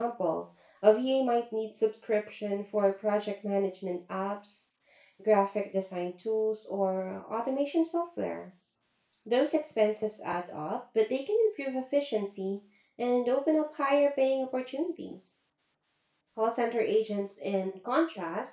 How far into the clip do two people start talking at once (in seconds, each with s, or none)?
none